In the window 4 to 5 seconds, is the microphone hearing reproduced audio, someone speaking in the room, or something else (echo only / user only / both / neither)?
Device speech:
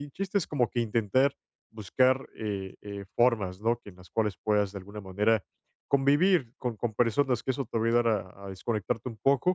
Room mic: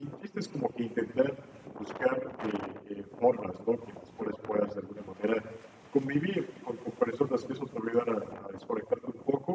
echo only